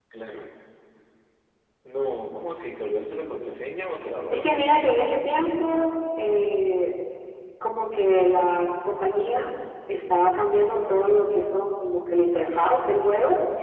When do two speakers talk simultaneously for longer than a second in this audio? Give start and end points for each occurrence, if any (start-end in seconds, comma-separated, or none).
none